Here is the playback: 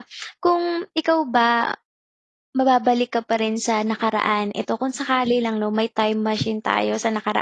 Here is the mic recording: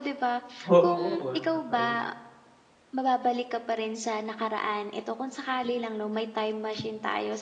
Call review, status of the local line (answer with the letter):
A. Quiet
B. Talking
B